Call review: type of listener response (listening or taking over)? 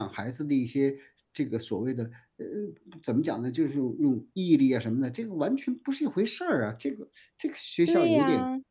taking over